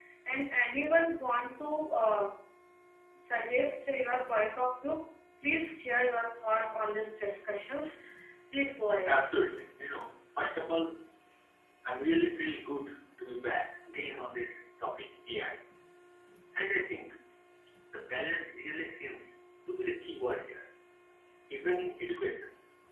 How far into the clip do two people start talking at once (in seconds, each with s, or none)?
none